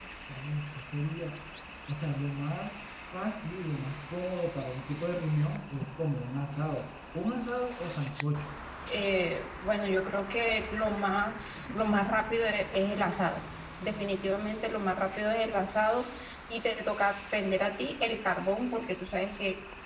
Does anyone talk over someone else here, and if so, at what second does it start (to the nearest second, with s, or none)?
none